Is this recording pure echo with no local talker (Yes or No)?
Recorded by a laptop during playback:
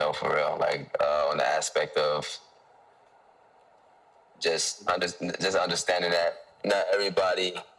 Yes